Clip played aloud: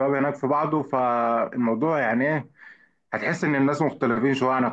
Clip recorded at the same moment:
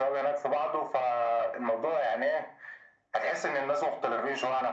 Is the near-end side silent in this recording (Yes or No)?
Yes